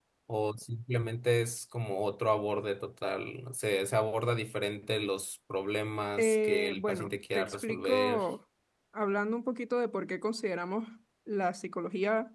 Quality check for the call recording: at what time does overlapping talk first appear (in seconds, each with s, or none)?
6.2 s